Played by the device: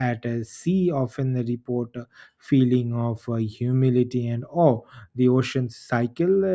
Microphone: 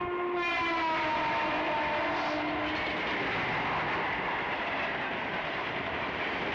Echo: none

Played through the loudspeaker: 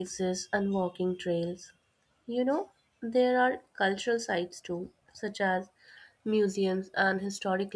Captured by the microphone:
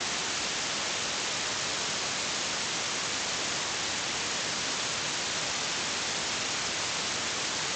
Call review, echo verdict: none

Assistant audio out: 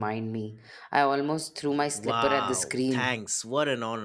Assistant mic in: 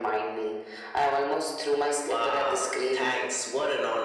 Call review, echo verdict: present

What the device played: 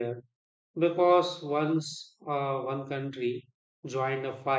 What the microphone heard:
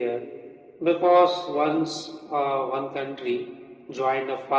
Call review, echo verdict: present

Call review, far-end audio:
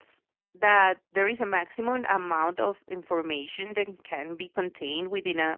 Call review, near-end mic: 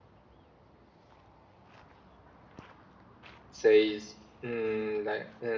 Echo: none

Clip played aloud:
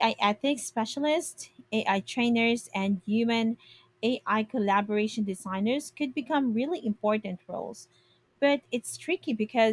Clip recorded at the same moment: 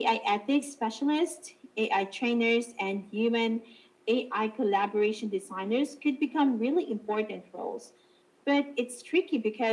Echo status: present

